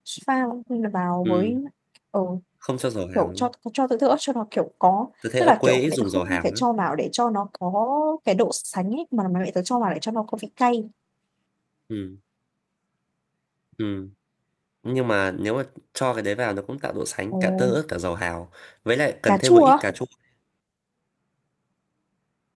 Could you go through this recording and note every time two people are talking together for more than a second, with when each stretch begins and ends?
5.4-6.6

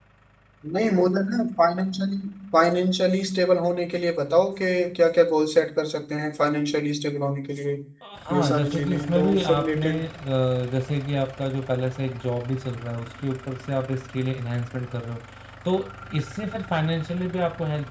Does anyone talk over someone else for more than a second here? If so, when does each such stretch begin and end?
8.3-10.1

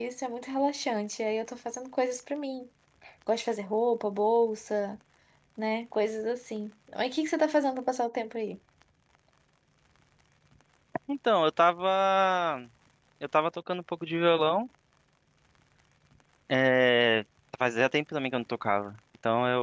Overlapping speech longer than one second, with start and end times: none

